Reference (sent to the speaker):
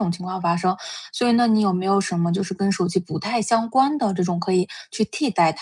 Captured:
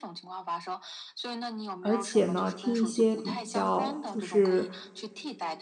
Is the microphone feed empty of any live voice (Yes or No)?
No